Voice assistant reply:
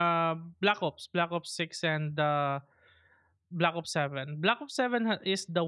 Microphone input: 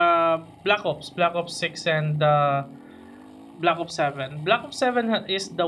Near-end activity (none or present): none